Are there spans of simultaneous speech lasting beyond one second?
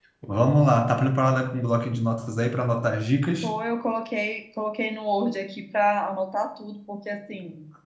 No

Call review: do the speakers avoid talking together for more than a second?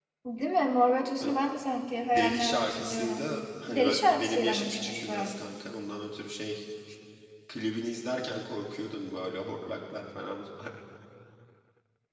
No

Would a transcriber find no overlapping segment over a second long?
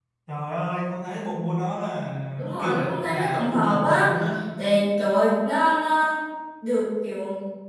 No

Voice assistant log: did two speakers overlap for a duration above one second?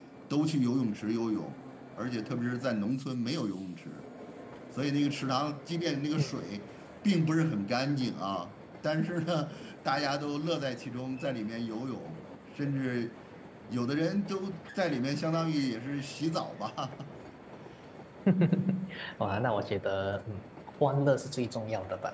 No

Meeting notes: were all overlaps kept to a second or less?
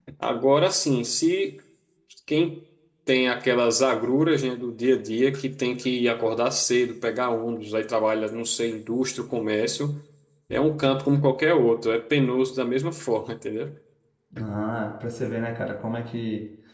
Yes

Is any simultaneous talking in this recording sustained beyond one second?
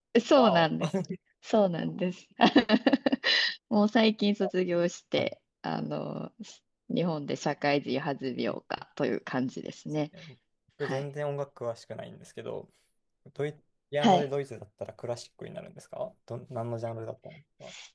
No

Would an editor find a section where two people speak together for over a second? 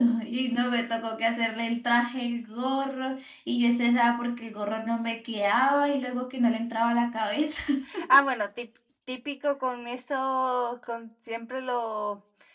No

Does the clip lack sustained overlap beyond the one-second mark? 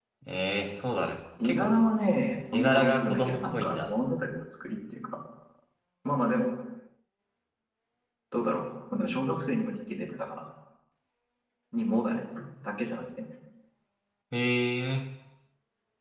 No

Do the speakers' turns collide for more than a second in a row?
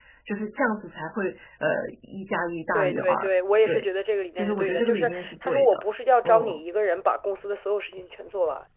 Yes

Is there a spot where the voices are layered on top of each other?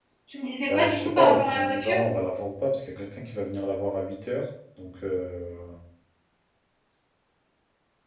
Yes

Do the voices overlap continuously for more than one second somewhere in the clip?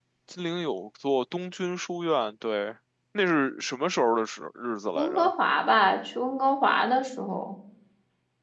No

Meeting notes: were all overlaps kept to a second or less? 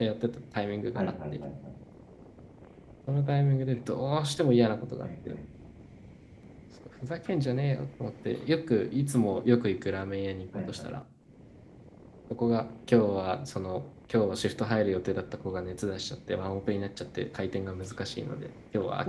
Yes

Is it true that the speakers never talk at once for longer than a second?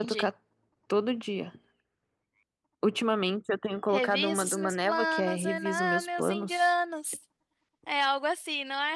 No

